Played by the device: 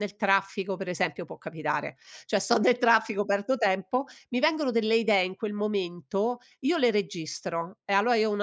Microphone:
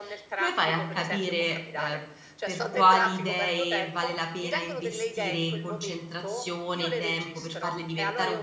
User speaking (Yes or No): Yes